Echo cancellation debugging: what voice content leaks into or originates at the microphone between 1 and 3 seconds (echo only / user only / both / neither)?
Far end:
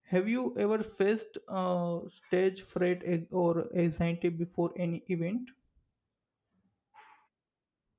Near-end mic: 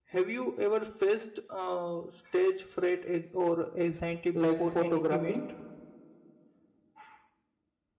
echo only